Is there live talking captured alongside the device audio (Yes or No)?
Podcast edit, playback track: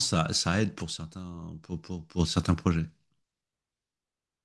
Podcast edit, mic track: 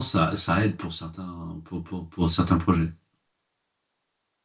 No